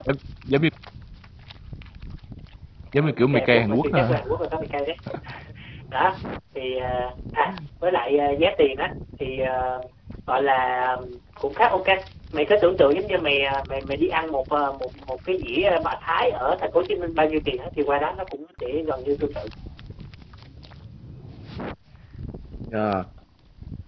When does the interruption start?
3 s

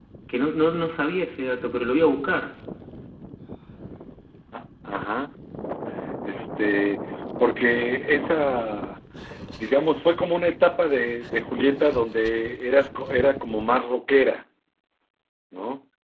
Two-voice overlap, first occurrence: none

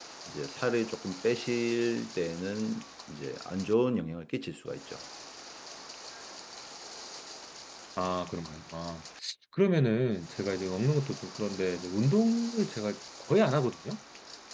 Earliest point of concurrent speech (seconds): none

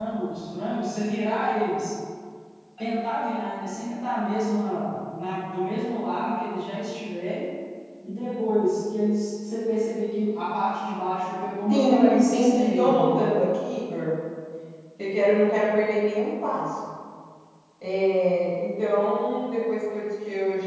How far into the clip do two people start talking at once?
12 s

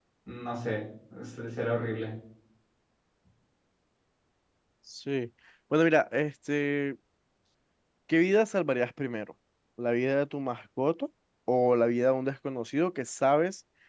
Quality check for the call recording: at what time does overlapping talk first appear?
none

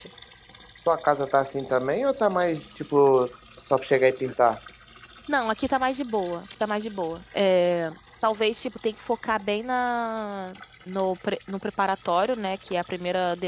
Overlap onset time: none

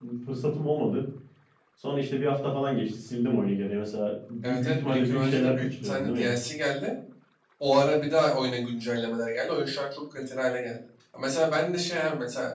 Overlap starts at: 4 s

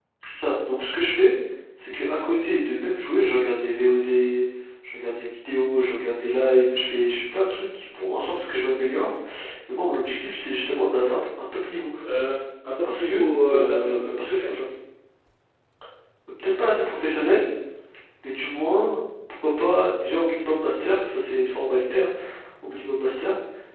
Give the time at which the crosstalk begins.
13 s

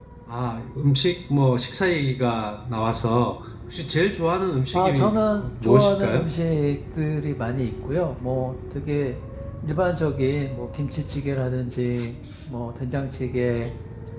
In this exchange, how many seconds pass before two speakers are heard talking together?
5 s

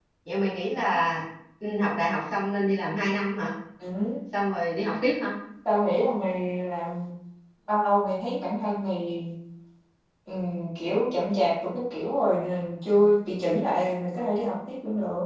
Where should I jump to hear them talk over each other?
none

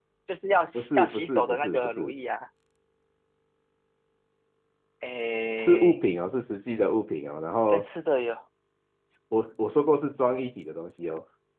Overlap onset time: 1 s

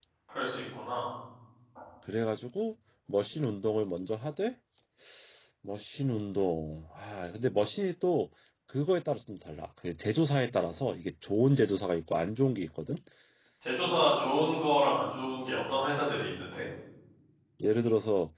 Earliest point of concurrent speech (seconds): none

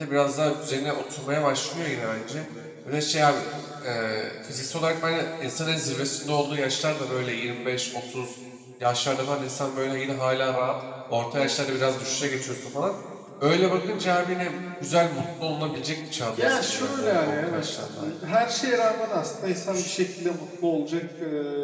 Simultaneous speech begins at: 16 s

